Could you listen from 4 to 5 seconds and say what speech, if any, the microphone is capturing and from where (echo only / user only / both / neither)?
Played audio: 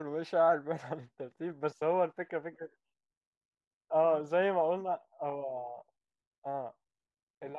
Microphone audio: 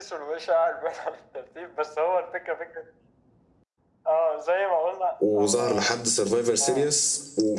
echo only